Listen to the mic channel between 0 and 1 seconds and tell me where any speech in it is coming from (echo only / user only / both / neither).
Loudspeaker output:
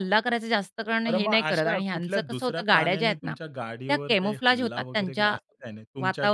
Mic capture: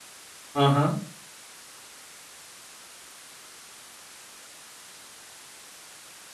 user only